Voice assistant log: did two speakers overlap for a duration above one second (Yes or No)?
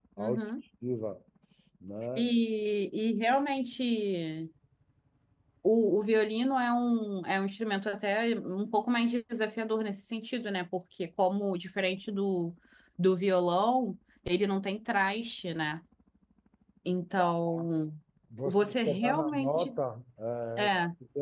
Yes